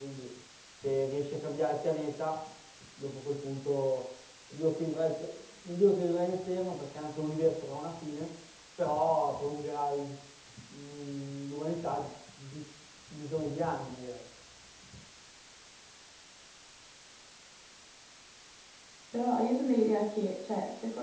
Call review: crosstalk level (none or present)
none